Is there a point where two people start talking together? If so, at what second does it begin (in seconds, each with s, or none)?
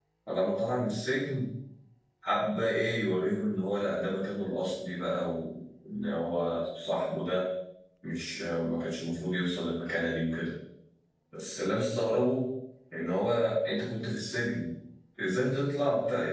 none